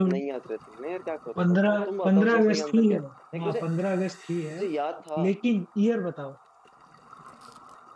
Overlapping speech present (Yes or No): Yes